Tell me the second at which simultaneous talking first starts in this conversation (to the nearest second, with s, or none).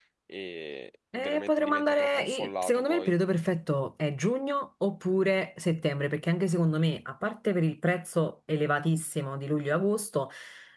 1 s